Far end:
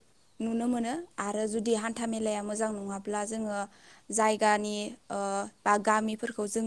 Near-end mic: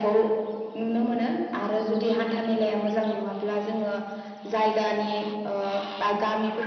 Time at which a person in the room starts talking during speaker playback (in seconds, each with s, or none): none